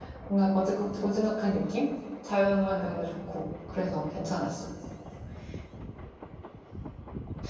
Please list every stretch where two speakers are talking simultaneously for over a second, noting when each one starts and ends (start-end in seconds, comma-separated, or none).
none